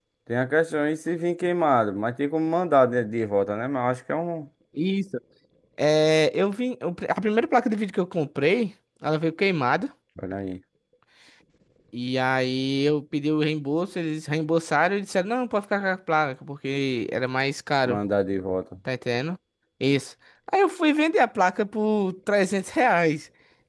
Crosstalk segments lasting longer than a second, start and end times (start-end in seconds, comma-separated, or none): none